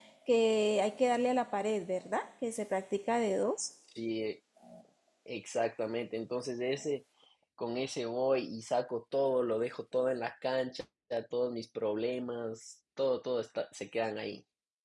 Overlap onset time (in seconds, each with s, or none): none